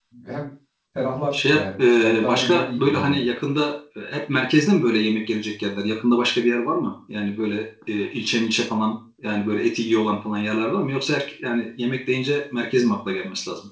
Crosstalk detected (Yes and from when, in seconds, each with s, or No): Yes, from 1.3 s